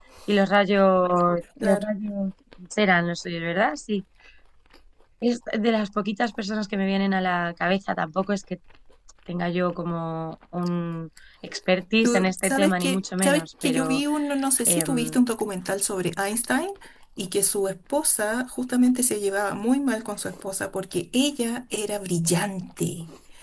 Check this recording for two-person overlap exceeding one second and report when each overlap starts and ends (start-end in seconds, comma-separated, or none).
12.0-14.0